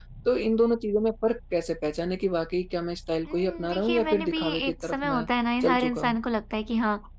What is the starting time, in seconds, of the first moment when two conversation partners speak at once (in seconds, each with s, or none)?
3.3 s